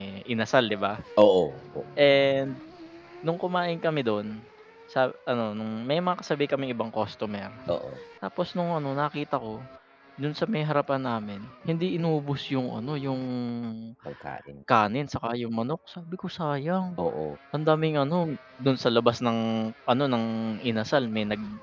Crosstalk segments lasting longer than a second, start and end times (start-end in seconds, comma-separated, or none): none